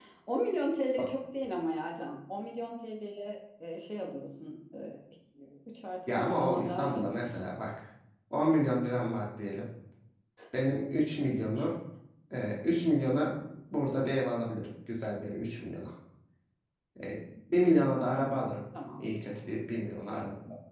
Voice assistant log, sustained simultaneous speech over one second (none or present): present